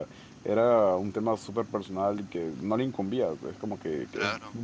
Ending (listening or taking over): listening